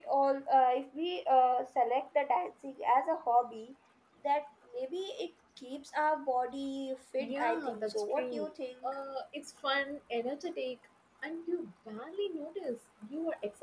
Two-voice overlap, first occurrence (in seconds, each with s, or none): 7.2 s